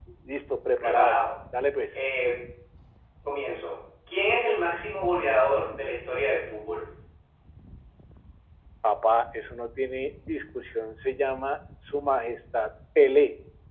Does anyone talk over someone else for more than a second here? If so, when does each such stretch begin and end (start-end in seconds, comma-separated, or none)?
none